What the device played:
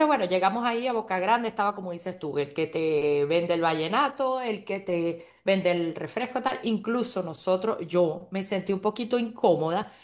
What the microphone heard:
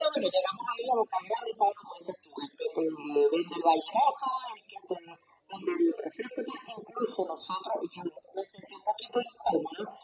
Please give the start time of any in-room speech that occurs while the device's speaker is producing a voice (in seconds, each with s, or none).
none